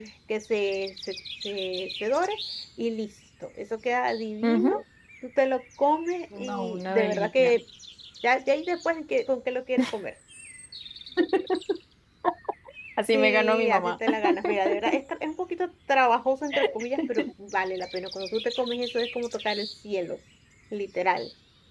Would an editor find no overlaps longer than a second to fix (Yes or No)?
No